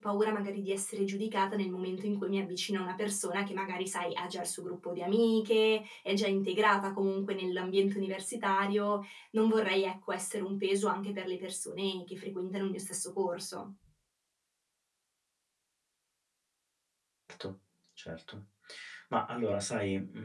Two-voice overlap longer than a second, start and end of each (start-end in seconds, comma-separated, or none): none